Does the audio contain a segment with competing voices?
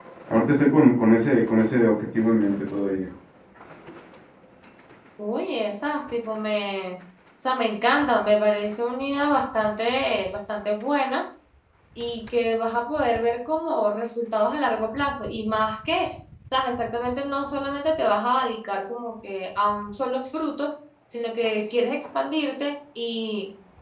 No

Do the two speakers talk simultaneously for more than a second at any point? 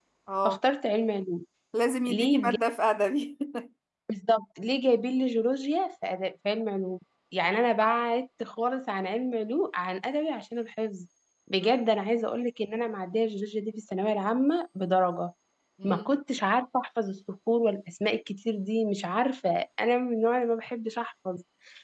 No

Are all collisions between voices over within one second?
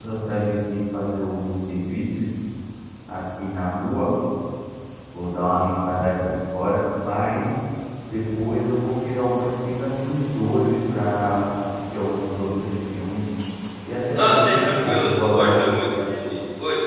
No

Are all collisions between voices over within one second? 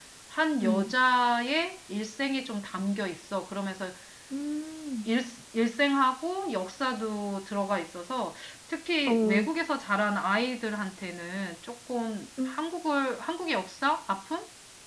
Yes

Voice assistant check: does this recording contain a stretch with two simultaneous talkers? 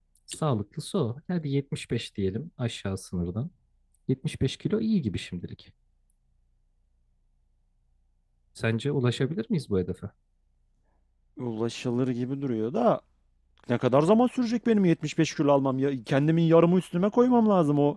No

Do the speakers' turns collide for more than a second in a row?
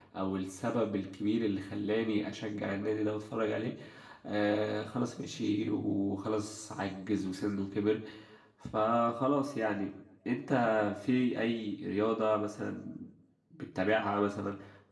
No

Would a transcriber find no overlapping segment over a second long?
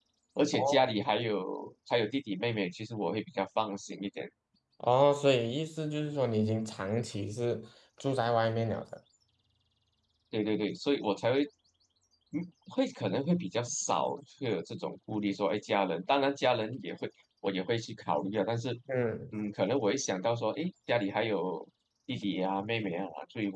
Yes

